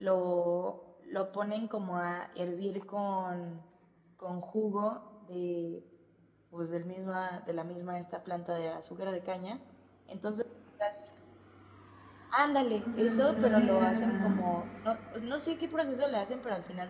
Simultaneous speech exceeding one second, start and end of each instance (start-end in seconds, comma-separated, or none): 12.8-14.3